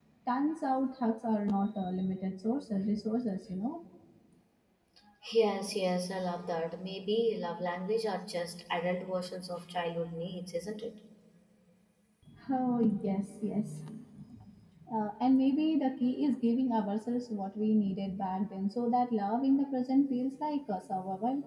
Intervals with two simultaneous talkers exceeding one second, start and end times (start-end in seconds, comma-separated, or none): none